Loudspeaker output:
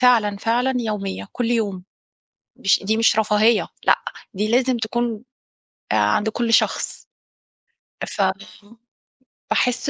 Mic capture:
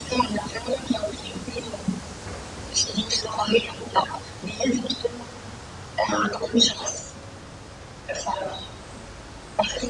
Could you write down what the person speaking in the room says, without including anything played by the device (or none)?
none